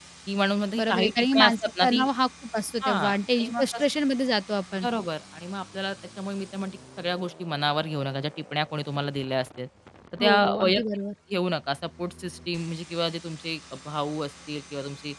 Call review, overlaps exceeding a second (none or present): present